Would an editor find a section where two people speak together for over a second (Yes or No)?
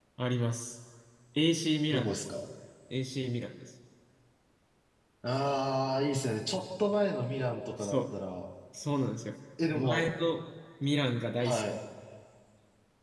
No